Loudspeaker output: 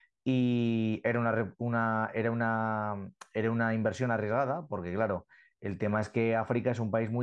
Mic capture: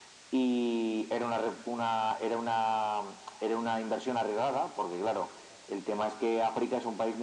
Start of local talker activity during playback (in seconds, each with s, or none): none